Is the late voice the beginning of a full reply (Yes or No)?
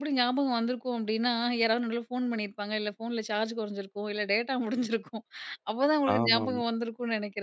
No